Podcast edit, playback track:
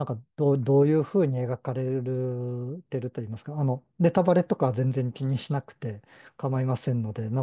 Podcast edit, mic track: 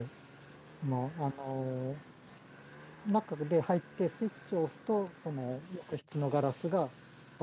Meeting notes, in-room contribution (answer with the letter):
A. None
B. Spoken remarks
B